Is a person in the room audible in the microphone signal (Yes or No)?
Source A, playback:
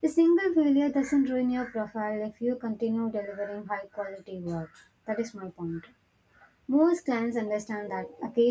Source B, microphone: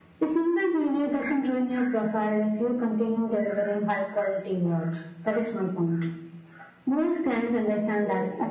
No